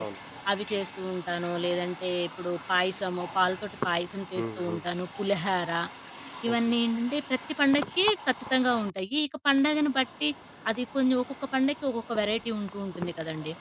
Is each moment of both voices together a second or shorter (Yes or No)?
Yes